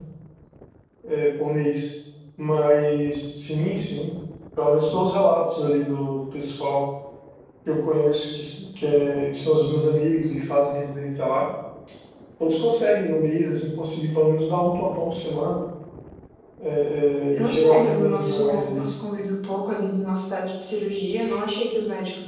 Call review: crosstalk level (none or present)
present